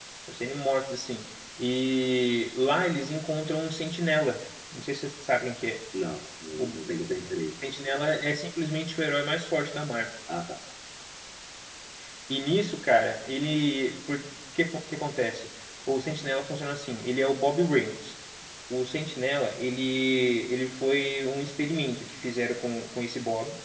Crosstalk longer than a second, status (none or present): none